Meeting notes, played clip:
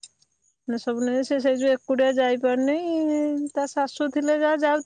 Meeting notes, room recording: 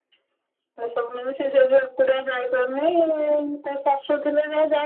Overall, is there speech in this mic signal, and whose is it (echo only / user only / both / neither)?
echo only